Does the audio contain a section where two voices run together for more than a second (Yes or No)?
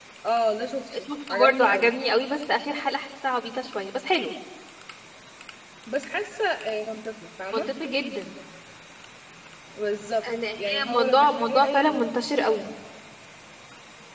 Yes